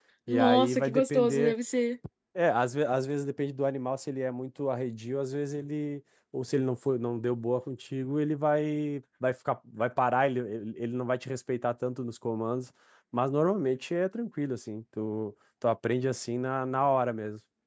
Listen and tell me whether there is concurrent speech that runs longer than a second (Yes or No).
Yes